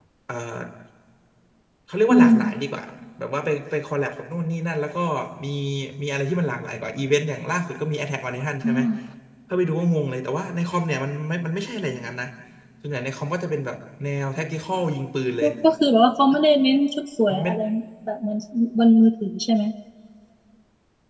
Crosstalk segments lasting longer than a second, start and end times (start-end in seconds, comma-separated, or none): none